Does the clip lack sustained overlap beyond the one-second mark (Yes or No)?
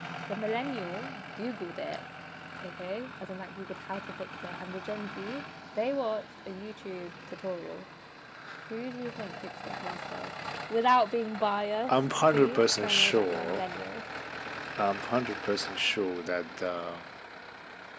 No